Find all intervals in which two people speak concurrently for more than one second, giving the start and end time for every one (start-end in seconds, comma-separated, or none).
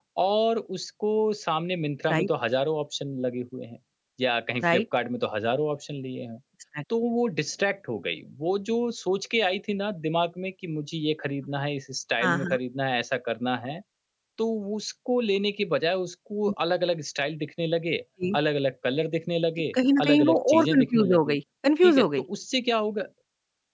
19.7-21.4